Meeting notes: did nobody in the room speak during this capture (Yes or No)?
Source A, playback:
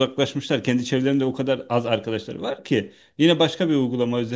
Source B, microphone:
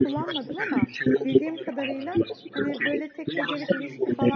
No